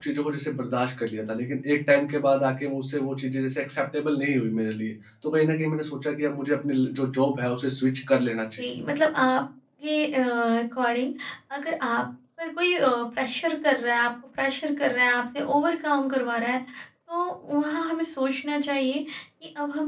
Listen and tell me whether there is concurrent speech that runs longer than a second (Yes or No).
No